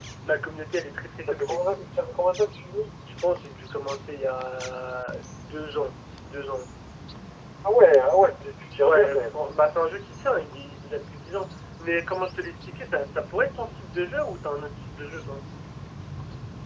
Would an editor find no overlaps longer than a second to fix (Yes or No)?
Yes